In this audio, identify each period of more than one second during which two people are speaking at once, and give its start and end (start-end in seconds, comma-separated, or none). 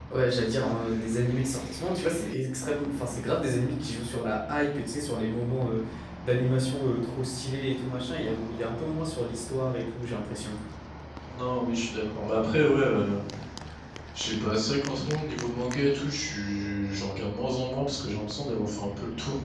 none